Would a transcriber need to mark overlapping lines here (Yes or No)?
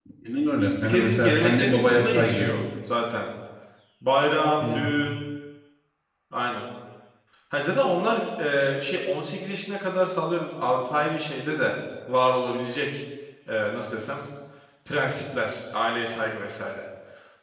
Yes